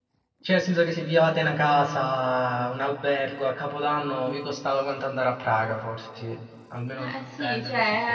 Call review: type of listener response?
taking over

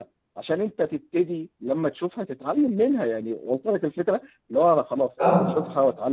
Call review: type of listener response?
listening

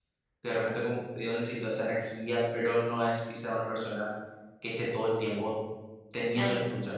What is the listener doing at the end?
taking over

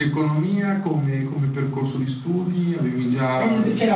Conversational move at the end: taking over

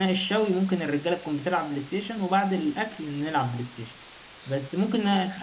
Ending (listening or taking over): listening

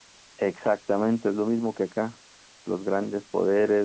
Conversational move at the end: listening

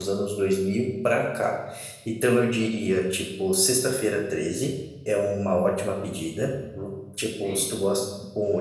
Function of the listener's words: listening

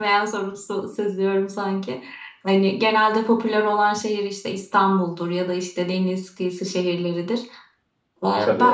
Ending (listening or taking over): listening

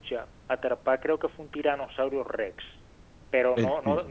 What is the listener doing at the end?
listening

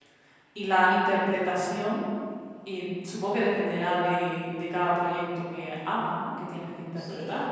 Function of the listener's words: taking over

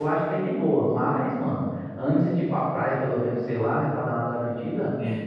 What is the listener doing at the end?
listening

